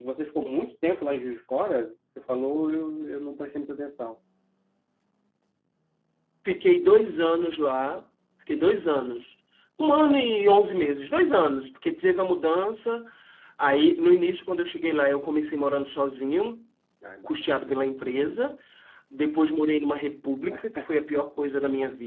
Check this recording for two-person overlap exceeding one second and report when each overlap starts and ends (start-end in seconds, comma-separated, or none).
none